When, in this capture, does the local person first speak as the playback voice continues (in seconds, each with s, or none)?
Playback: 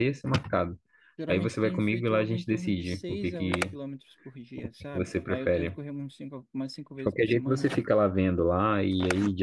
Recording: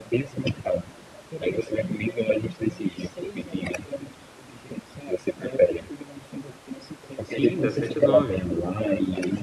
7.2 s